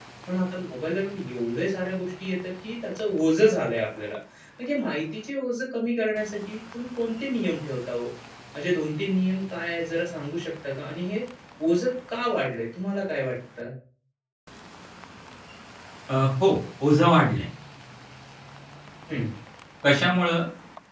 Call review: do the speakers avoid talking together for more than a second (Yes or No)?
Yes